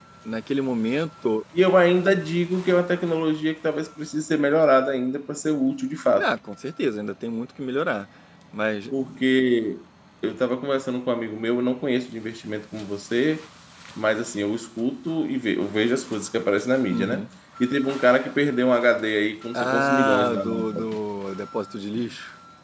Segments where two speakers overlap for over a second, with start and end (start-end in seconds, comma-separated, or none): 19.5-21.0